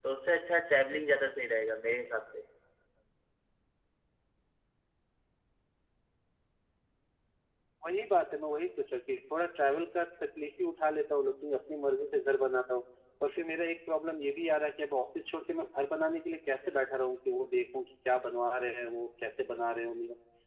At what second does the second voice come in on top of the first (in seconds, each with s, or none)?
none